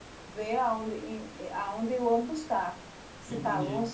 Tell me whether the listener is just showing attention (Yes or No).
Yes